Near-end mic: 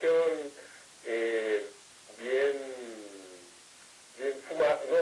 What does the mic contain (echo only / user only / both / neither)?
echo only